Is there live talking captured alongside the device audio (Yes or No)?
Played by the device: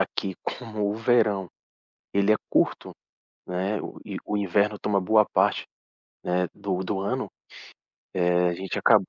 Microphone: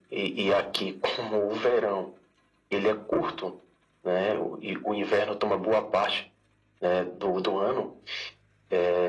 No